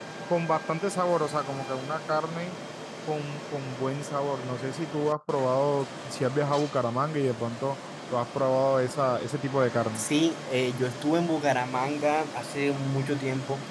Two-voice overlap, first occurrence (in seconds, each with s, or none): none